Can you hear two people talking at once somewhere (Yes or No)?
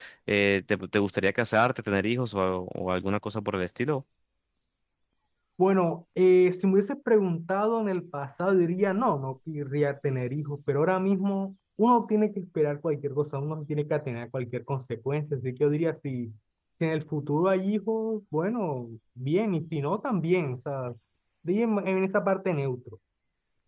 No